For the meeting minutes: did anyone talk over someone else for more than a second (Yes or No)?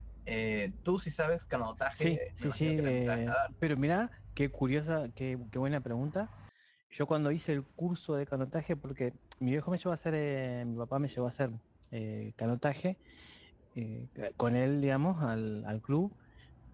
Yes